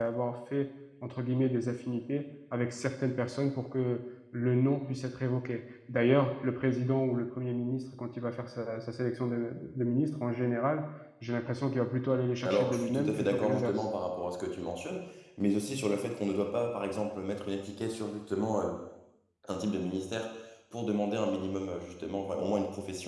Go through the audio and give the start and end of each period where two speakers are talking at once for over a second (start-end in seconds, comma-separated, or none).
12.4-13.8